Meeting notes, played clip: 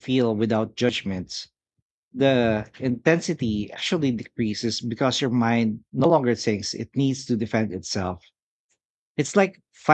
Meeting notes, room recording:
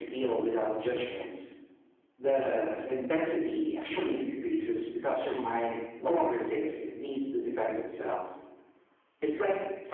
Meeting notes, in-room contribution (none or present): none